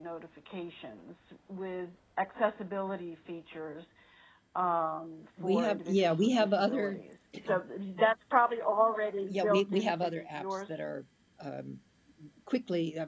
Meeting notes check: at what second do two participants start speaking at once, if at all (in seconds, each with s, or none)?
5.4 s